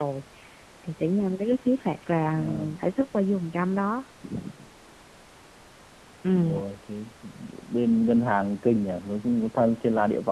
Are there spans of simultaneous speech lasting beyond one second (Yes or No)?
No